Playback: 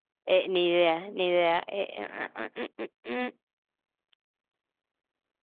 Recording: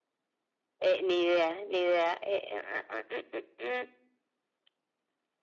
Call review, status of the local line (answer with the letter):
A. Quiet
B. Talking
A